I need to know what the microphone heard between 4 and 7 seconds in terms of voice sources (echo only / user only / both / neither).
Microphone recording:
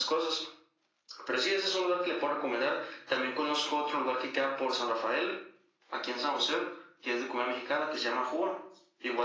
echo only